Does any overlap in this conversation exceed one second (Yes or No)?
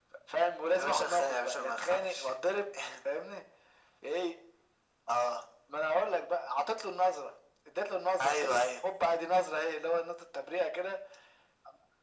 Yes